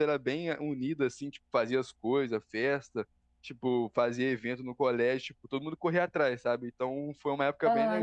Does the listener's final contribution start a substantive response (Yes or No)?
No